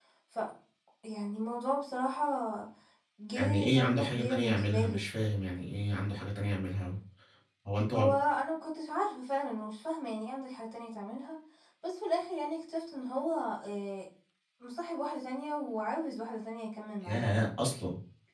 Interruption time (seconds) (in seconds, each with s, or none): 3.3 s